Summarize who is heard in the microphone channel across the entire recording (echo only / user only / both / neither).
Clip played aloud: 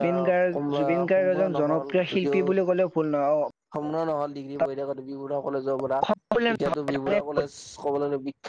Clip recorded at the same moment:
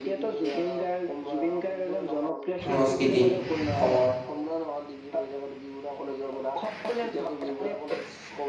both